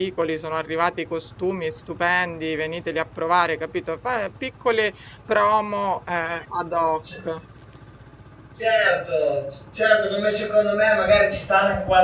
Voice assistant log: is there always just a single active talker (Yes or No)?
Yes